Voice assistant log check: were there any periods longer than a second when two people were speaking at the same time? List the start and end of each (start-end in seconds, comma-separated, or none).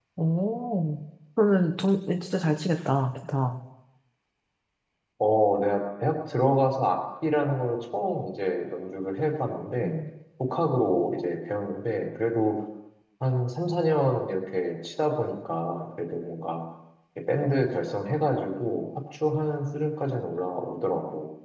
none